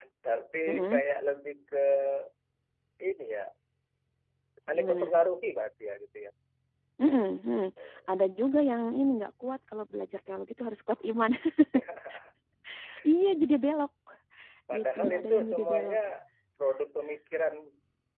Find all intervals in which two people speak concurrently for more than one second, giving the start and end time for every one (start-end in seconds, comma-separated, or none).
14.8-16.0